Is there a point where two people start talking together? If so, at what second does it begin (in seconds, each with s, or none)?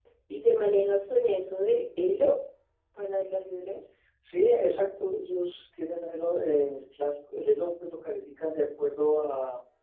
none